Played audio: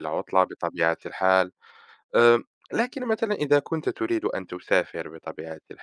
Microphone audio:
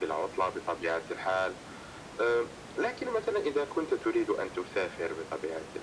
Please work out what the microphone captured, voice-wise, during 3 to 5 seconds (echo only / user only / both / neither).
echo only